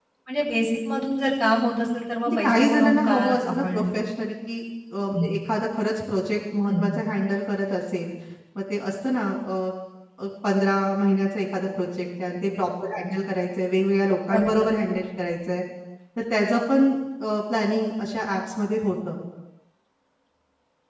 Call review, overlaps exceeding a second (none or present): present